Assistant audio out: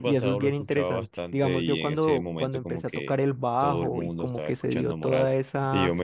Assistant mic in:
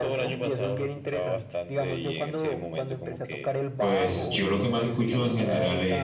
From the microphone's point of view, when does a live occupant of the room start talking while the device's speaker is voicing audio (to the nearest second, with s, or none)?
4 s